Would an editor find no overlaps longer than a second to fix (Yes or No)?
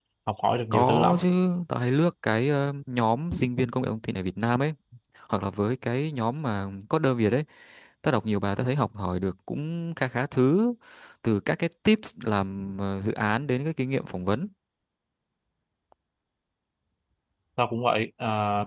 Yes